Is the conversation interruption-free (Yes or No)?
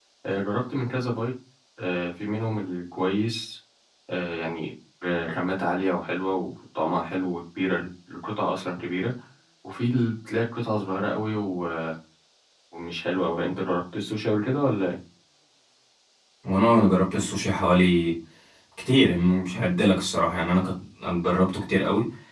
Yes